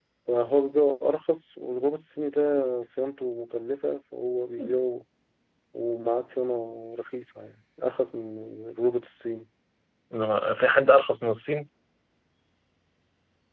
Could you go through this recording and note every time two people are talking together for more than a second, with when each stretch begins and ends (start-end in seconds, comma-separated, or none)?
none